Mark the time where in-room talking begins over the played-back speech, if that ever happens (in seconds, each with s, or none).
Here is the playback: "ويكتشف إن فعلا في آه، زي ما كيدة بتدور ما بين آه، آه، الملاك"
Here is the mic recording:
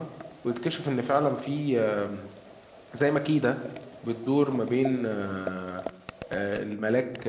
none